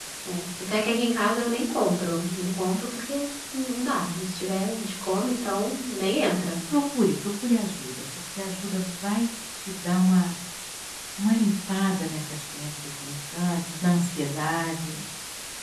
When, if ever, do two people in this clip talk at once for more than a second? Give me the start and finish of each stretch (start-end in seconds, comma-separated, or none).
none